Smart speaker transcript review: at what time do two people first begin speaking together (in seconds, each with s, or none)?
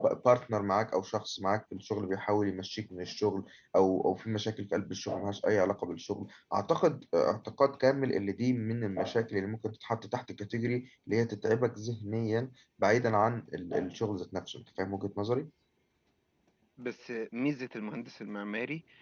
none